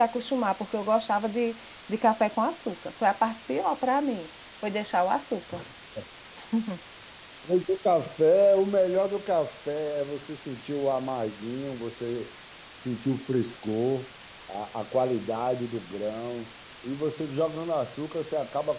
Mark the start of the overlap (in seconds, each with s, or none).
none